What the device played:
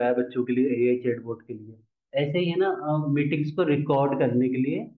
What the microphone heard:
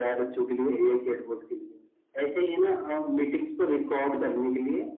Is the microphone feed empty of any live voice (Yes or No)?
Yes